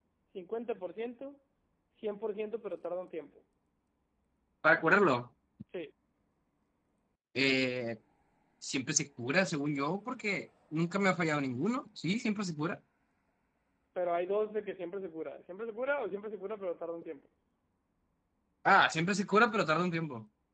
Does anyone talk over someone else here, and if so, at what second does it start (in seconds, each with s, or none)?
none